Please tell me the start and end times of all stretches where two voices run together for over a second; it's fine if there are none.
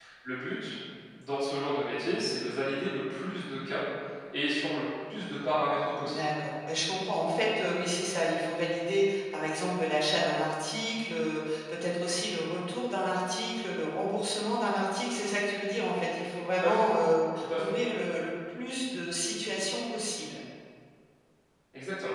none

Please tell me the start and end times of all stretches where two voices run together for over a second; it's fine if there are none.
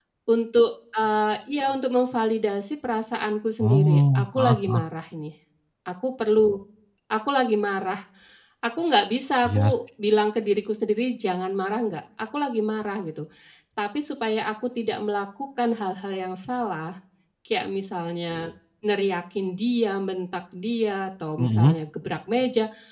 3.6-4.8

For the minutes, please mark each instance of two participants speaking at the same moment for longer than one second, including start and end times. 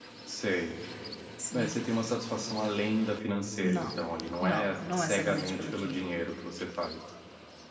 4.4-6.0

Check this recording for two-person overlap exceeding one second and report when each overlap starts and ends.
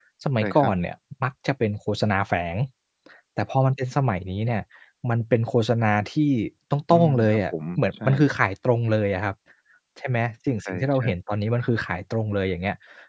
6.9-8.3

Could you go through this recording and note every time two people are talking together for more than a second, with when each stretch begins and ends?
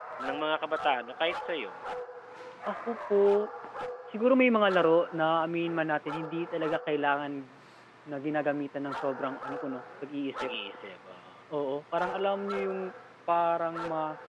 none

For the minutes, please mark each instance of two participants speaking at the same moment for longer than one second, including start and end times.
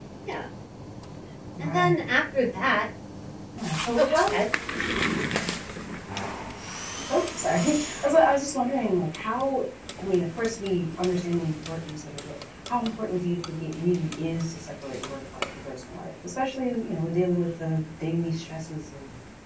none

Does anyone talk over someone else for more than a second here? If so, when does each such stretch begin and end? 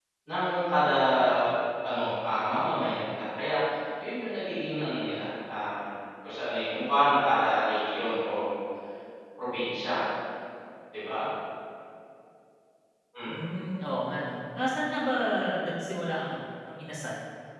none

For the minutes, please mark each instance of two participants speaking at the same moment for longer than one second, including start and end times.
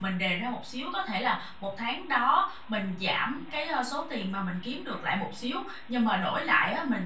none

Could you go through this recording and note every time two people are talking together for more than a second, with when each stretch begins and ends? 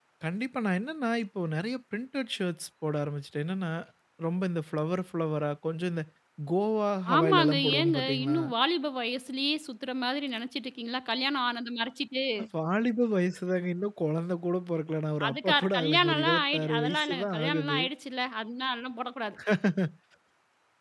7.2-8.4, 15.3-17.8

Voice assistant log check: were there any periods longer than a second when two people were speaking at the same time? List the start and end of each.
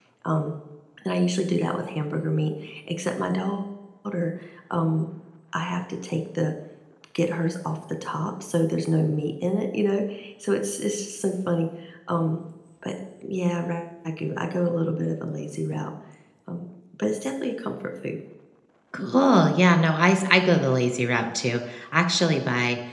none

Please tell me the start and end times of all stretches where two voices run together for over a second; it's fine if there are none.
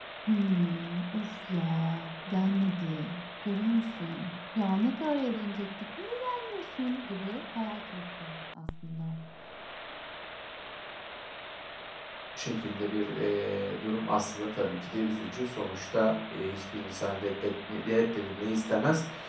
none

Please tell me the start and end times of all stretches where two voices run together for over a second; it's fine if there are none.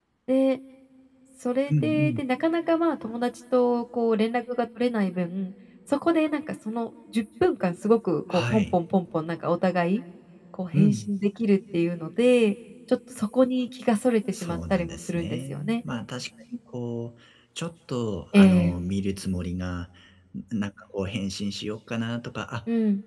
14.4-15.8

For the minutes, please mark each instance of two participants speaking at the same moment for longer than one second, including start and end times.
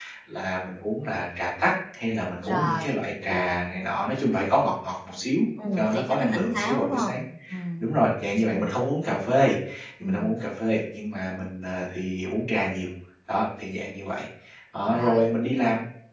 5.8-7.2

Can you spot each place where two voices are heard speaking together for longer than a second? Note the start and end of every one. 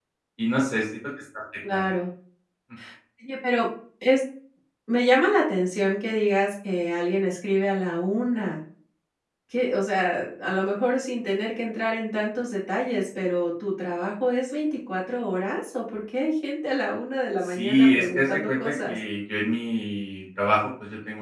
17.4-19.0

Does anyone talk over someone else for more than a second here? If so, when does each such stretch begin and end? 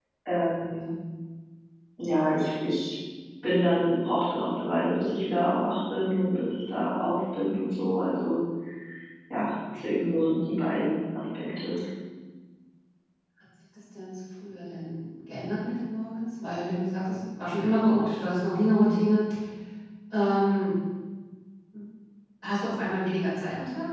none

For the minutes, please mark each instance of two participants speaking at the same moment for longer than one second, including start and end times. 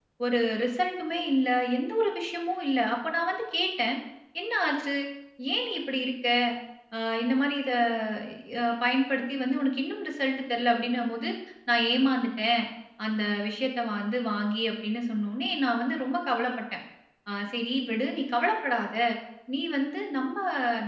none

